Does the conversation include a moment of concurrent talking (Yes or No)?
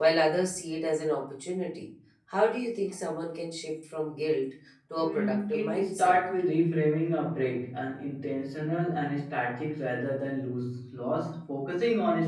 Yes